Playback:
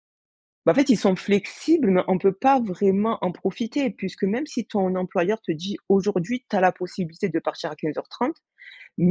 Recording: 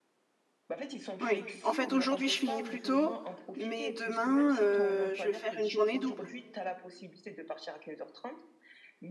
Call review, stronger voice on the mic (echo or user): user